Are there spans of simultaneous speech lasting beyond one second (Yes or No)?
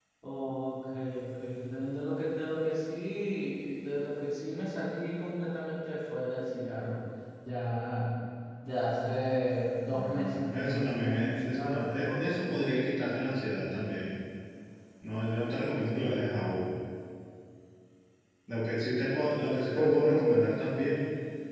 Yes